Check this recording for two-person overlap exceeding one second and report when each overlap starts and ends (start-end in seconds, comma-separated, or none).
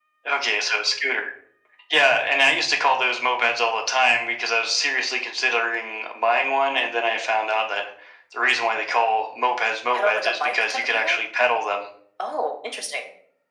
9.9-11.2